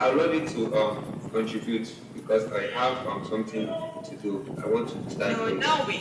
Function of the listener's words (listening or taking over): taking over